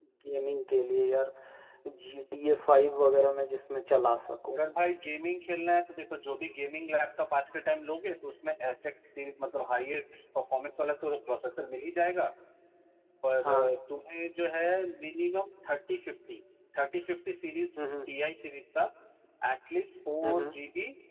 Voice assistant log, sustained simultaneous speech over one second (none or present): none